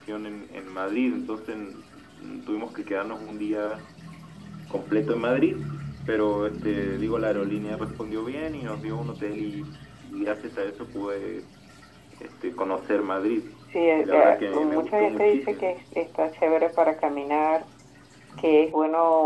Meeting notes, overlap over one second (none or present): present